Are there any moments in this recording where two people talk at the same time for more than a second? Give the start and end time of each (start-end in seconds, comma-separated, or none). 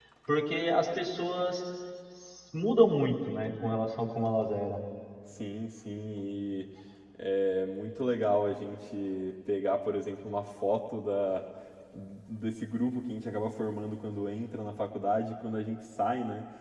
none